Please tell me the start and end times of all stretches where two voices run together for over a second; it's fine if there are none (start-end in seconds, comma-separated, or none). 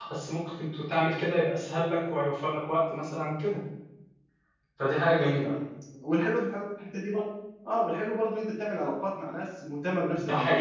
none